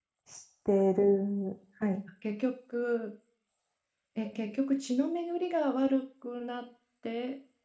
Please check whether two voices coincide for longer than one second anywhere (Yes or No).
No